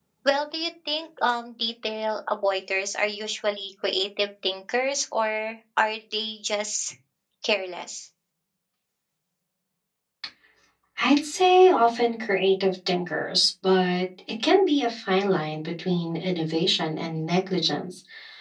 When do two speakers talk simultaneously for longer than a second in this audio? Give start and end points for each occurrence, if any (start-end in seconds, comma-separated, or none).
none